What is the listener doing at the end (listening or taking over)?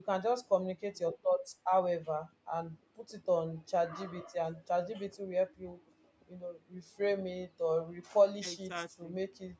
listening